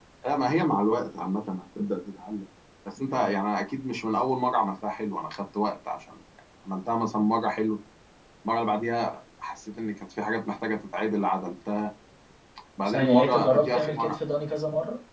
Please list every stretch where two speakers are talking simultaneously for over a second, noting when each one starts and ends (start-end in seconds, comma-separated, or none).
12.9-14.2